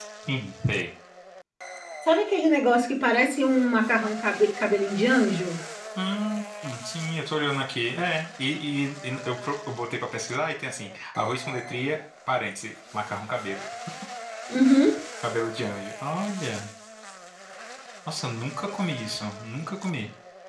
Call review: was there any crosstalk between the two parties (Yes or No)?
No